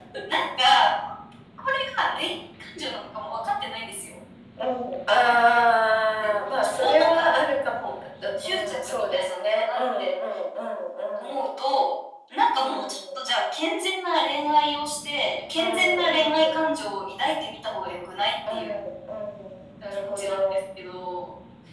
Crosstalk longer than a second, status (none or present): present